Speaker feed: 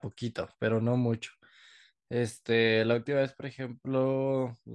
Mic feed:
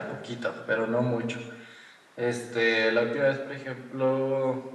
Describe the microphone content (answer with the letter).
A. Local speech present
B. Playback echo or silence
B